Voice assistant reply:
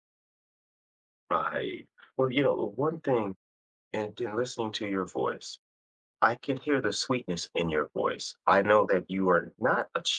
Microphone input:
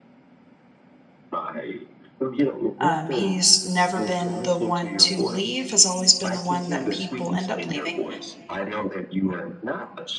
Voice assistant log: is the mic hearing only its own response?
No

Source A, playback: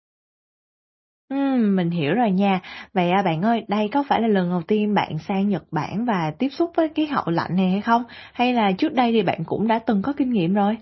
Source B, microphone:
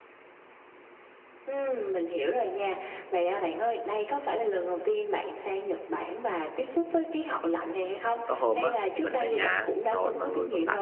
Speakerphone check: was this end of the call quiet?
No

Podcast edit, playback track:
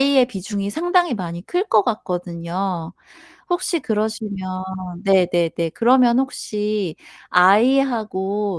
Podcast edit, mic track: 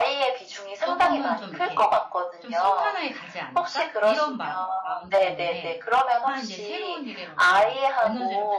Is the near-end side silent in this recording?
No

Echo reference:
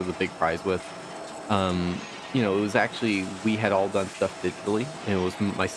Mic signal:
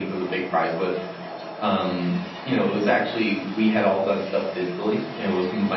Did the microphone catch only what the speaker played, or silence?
Yes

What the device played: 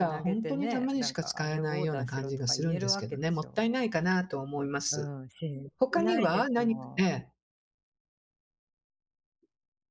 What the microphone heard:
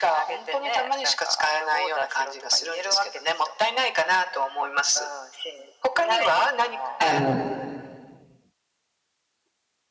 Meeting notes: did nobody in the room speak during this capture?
No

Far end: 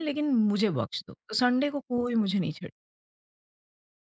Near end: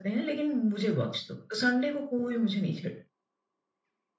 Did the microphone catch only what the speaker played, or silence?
Yes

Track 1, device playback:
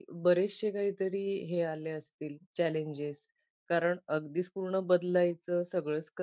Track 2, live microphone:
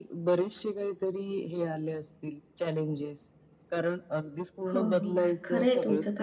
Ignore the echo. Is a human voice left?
Yes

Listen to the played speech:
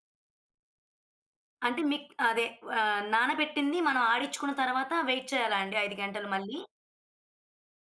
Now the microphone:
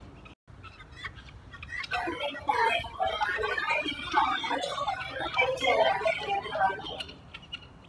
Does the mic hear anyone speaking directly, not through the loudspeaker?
No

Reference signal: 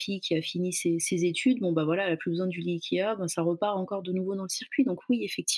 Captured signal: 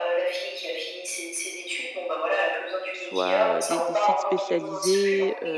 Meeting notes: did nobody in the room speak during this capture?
No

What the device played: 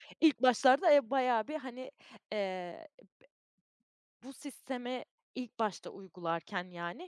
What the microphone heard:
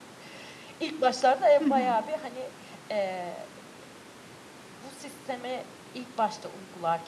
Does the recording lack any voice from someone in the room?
No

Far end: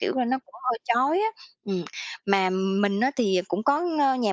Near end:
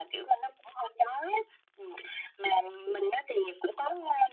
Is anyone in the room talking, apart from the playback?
No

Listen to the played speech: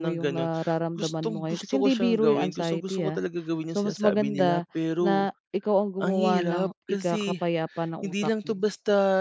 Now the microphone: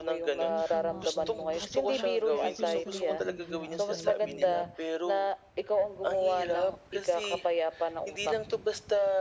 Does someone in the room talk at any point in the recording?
Yes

